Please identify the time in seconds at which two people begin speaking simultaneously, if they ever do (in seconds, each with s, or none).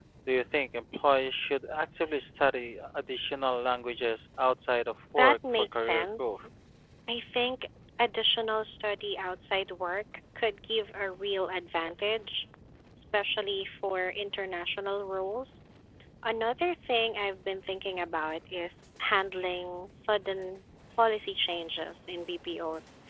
5.2 s